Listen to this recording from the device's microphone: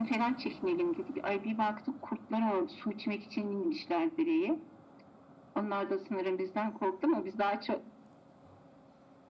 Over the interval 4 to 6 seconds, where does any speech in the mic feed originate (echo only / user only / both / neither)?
echo only